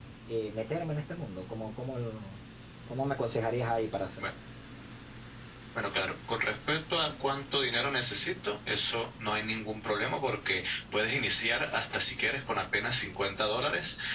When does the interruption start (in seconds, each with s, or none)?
none